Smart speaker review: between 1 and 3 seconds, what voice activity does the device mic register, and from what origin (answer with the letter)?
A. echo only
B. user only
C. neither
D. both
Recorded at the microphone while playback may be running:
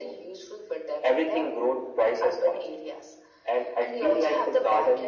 A